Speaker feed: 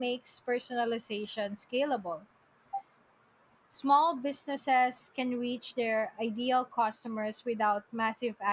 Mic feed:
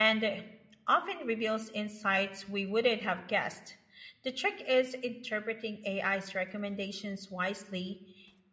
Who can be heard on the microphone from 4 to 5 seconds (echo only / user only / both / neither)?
user only